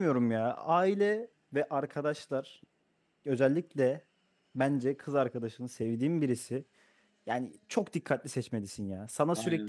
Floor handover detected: No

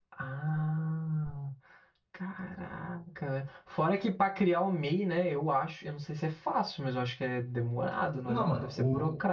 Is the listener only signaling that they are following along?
No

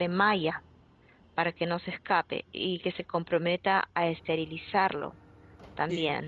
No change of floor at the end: No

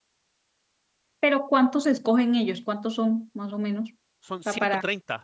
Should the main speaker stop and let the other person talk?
Yes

